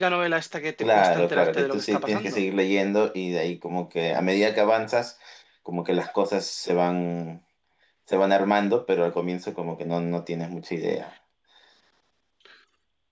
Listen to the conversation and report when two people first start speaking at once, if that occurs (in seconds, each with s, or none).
0.8 s